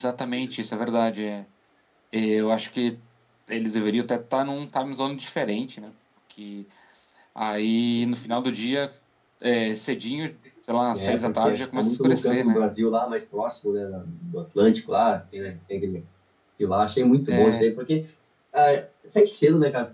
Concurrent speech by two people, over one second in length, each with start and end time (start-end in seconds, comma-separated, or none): 10.9-12.6